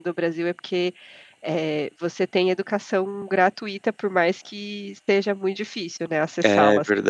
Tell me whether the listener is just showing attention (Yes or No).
No